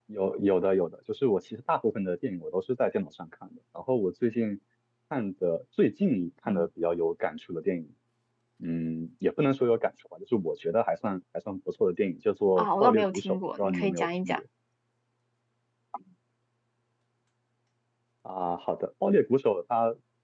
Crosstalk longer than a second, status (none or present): present